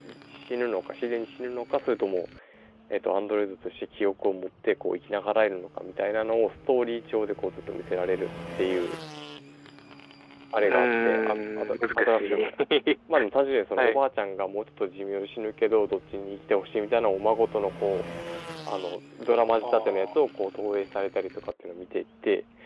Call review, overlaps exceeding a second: present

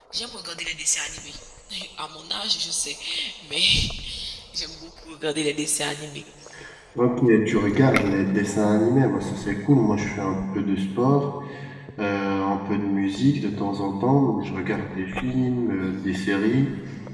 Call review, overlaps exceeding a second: none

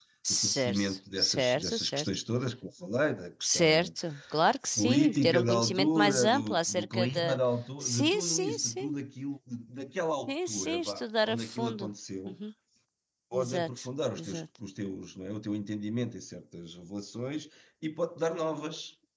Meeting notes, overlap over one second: present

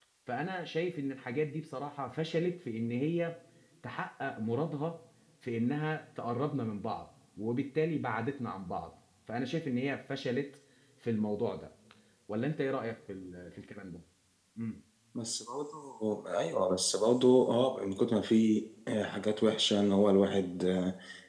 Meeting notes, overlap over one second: none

